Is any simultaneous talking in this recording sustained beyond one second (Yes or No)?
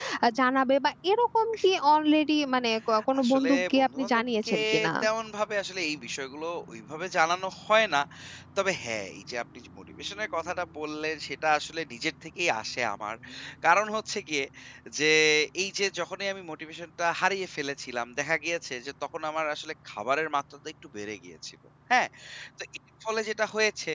Yes